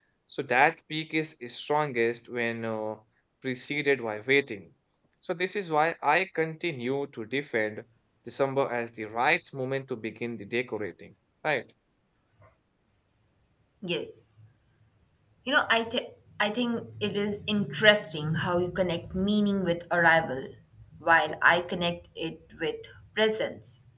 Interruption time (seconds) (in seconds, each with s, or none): none